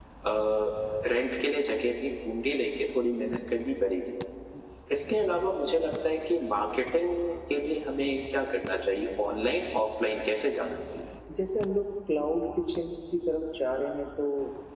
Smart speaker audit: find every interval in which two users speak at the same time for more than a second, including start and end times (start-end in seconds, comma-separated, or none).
none